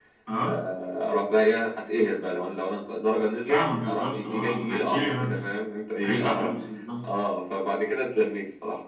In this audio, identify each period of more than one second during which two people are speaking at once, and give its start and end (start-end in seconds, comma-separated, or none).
3.5-5.4